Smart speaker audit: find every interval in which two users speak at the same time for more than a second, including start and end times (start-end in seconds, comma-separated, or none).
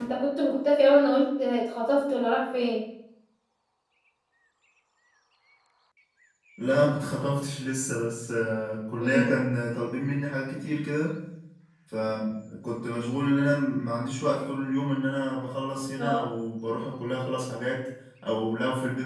none